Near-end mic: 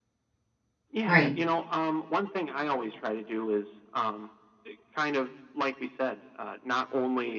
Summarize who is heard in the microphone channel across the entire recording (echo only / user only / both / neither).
both